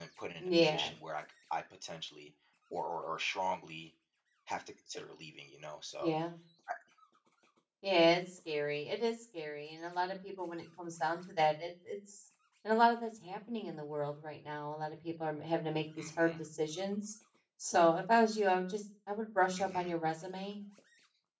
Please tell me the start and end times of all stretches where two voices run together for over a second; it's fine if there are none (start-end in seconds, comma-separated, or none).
none